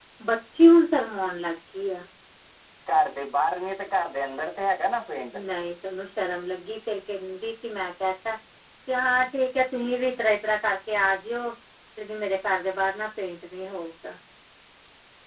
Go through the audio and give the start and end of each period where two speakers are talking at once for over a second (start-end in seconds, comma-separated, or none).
none